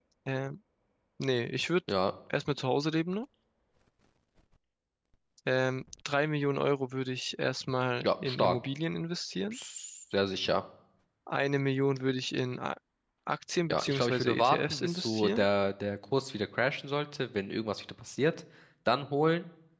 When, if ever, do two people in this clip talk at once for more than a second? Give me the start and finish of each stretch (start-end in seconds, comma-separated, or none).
13.7-15.5